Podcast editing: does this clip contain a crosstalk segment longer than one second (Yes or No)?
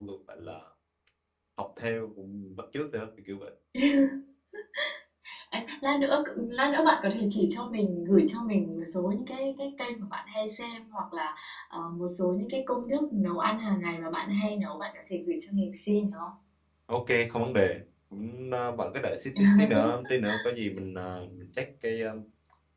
No